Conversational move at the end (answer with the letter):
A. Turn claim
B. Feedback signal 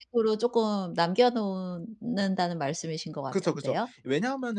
A